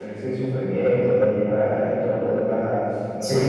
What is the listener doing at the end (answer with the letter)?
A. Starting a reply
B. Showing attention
A